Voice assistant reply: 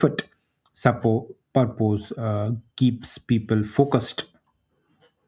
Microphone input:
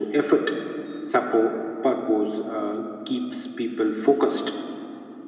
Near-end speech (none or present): none